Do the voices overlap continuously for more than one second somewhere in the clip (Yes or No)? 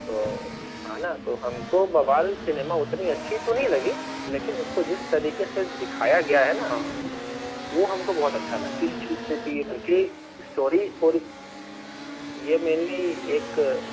No